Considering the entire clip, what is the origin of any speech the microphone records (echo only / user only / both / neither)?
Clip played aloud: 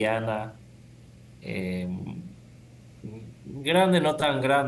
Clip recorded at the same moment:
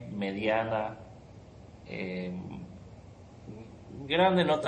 echo only